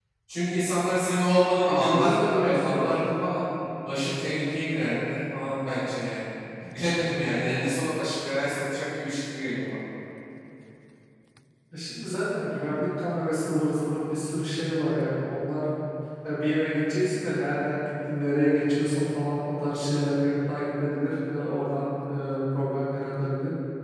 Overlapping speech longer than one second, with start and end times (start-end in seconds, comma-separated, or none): 1.7-3.0